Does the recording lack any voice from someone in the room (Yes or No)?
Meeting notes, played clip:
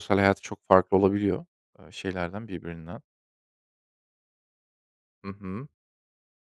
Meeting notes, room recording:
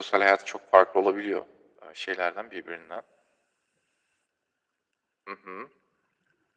Yes